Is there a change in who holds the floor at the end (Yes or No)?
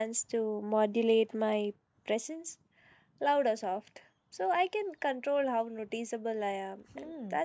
Yes